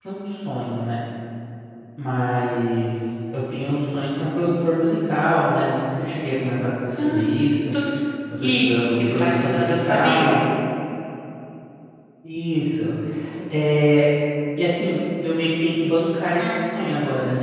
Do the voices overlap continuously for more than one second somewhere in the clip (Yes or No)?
Yes